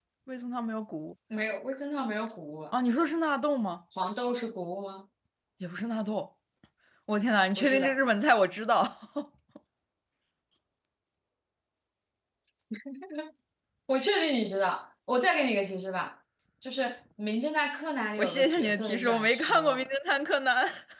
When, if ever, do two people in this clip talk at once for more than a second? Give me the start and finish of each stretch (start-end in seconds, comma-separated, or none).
18.2-19.8